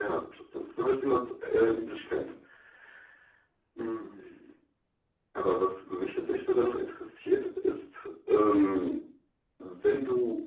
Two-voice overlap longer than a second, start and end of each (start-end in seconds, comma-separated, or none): none